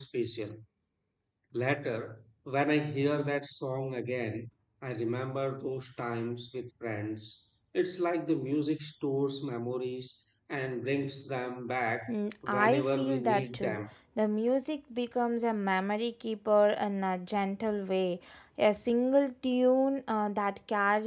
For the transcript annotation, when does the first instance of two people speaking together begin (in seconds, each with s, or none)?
12.5 s